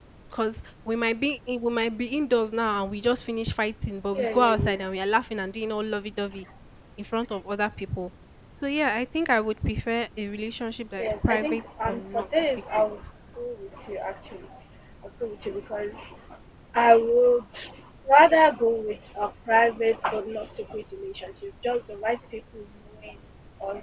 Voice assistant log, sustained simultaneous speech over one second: present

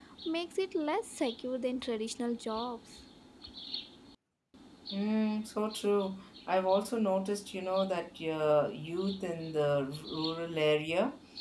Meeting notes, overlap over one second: none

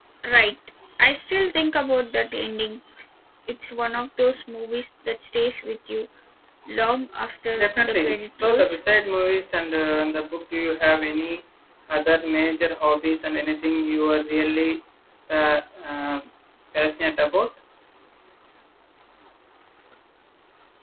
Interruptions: present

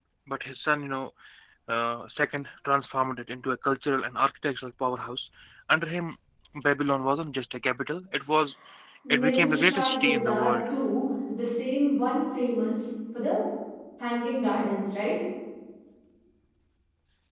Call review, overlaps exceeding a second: present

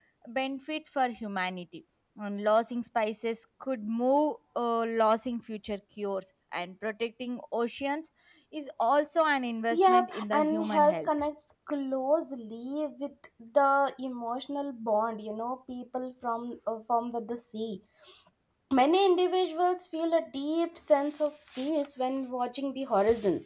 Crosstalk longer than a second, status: present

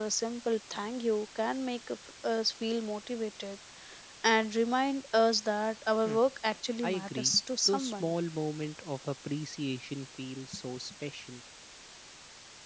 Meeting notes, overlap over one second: present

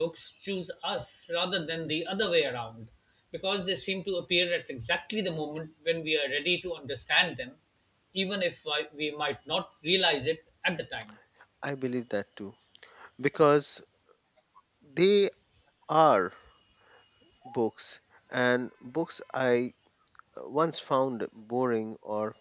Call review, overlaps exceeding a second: none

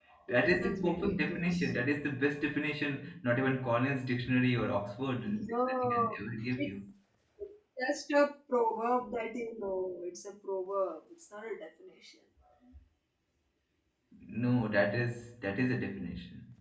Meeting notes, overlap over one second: present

